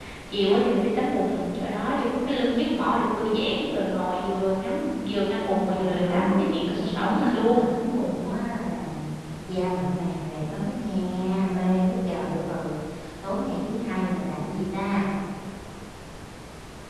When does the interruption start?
6 s

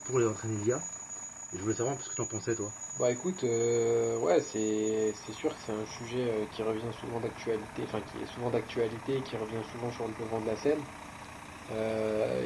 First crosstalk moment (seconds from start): none

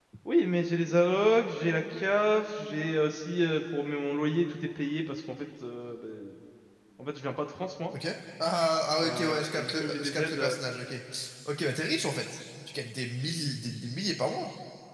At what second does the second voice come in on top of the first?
9 s

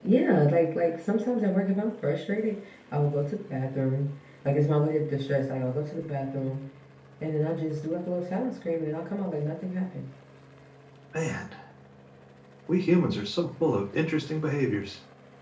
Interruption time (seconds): none

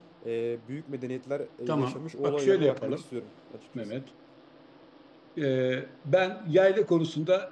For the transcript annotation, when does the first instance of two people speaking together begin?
2 s

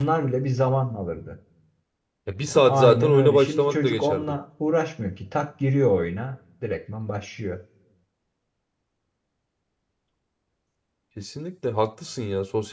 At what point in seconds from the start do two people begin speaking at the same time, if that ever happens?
3 s

